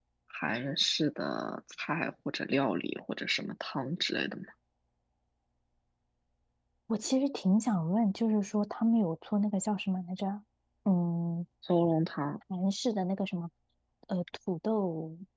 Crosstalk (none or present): none